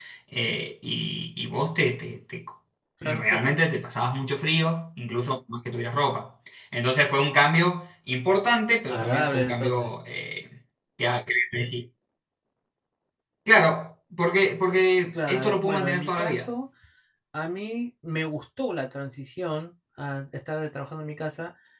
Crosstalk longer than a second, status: present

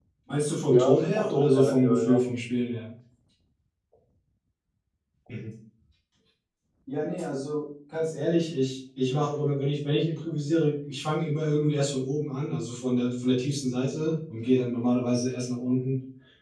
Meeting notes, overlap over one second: present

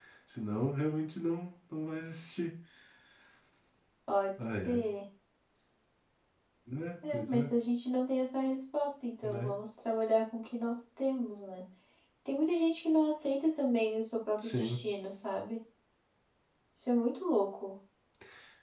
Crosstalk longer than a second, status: none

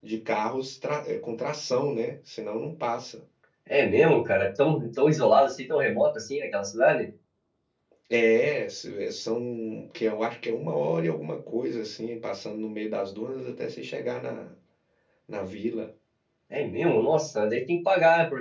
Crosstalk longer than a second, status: none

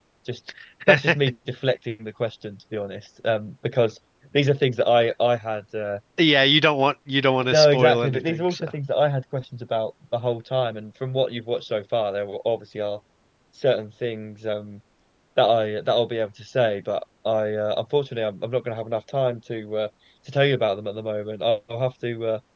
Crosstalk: present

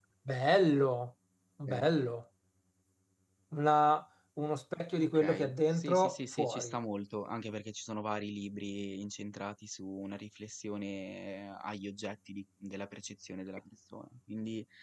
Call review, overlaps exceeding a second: present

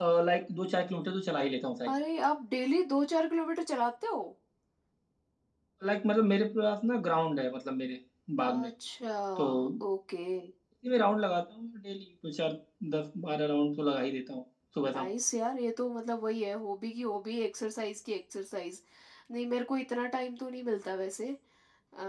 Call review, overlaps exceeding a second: none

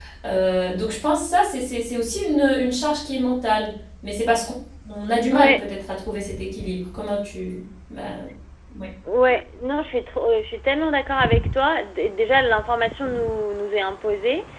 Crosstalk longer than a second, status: none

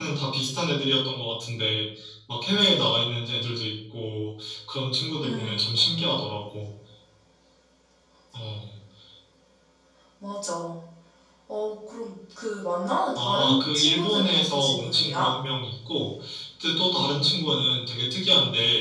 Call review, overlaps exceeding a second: present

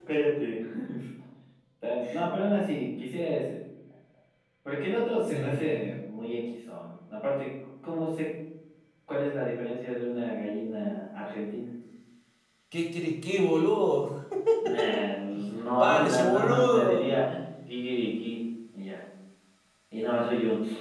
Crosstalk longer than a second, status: present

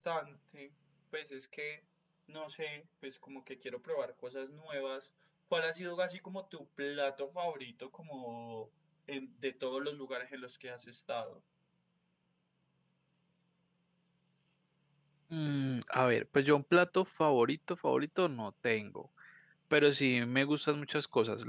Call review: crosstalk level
none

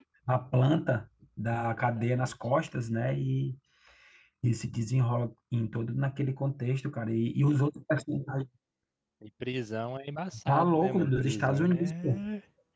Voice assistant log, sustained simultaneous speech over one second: present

